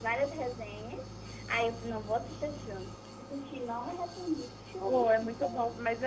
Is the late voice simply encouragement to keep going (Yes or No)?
No